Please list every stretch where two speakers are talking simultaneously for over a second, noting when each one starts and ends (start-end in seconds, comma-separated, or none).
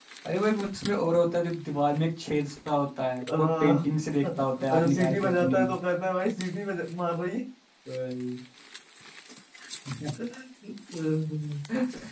4.2-5.6